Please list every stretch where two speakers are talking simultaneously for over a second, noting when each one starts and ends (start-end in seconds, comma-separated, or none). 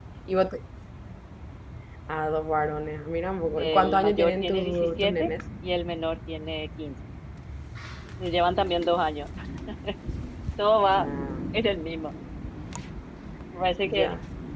3.6-5.3